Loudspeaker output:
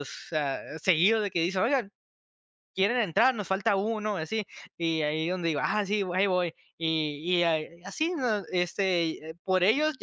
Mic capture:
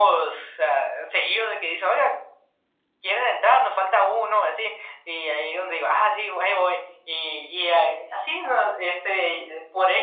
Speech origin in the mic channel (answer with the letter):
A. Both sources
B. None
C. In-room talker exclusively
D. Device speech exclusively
D